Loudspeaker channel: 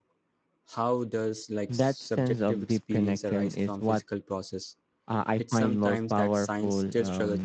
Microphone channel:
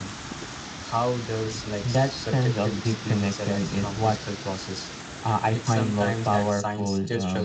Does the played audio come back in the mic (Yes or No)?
Yes